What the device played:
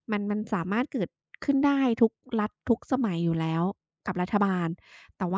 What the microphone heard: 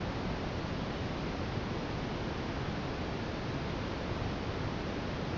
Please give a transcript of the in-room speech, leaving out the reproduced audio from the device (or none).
none